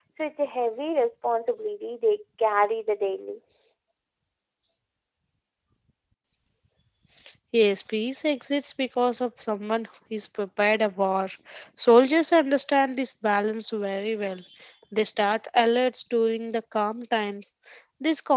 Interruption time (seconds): none

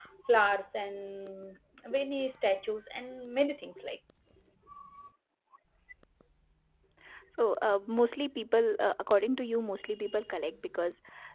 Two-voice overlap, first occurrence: none

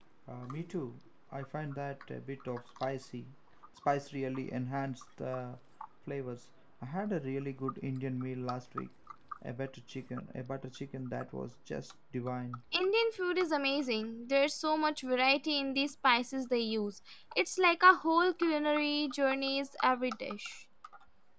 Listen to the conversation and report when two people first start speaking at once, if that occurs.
none

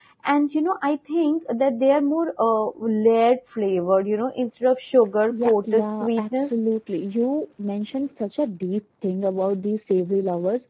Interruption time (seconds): 5.3 s

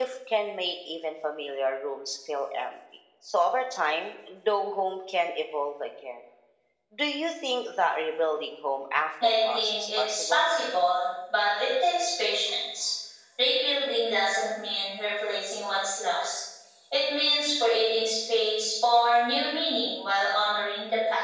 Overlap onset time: 9.2 s

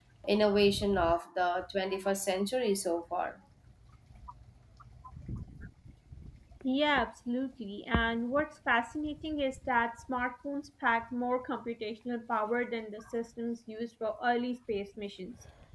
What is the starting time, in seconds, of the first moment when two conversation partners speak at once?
none

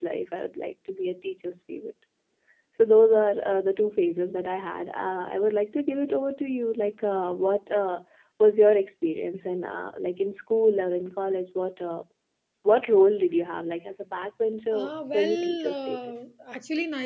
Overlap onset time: 14.7 s

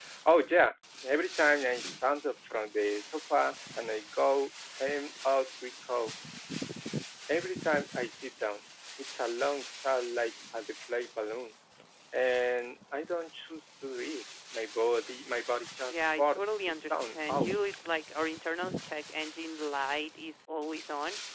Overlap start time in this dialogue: 15.9 s

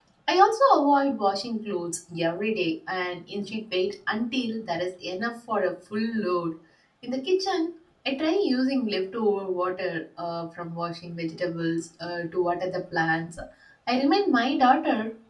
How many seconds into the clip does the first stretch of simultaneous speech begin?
none

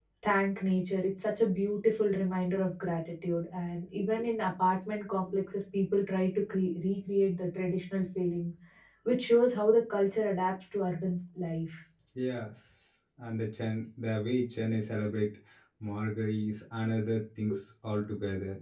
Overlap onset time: none

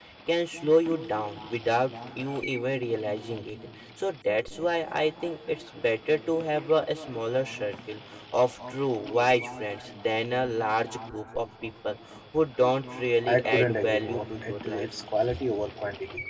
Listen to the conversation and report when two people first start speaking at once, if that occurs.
13.2 s

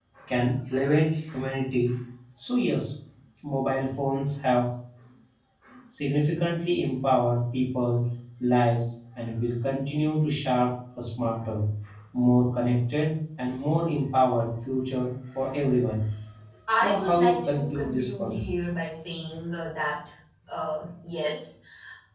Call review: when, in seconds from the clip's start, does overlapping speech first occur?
16.7 s

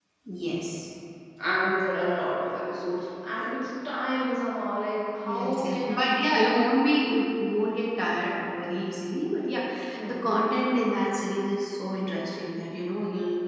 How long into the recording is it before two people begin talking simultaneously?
5.2 s

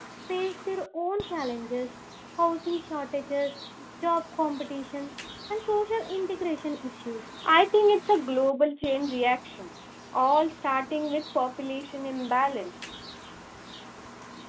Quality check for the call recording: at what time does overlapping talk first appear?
none

